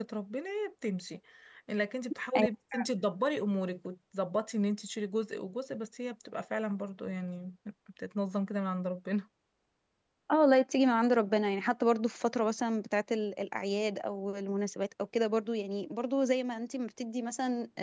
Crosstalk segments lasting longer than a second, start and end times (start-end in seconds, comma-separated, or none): none